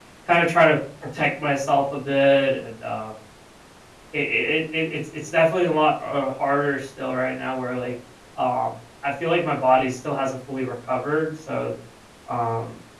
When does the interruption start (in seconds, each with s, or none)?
none